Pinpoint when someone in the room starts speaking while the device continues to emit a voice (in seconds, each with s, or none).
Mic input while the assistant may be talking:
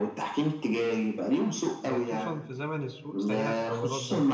1.9 s